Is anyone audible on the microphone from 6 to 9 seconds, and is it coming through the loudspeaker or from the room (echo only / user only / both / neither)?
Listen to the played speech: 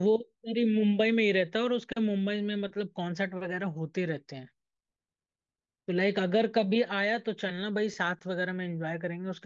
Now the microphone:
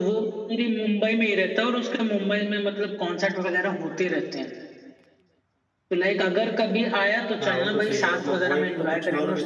both